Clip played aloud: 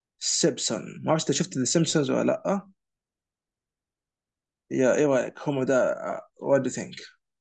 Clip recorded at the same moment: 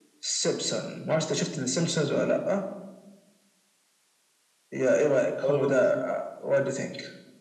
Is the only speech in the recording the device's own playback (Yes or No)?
No